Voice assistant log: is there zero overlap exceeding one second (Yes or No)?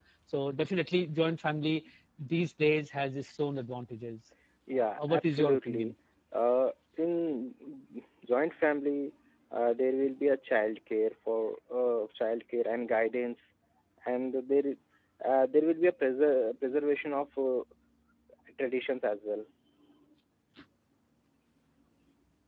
No